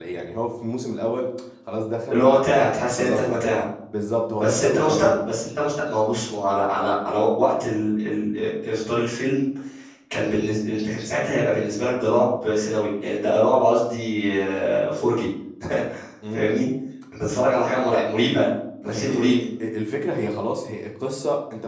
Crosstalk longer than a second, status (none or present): present